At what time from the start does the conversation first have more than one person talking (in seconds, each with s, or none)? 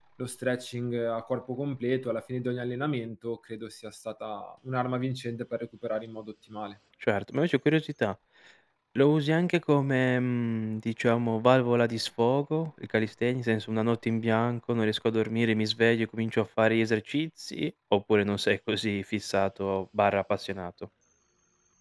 none